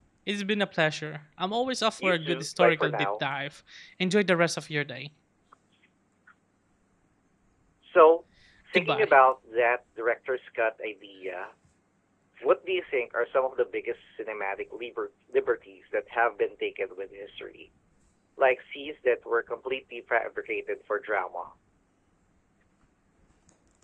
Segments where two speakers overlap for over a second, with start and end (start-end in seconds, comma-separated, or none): 2.0-3.3